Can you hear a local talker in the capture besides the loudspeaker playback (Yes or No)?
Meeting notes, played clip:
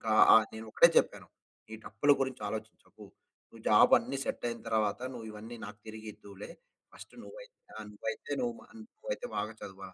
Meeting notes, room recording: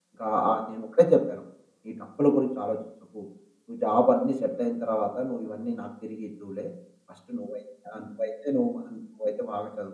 No